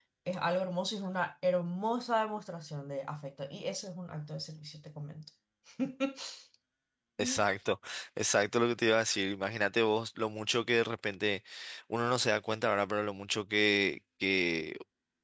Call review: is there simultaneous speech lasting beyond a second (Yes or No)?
No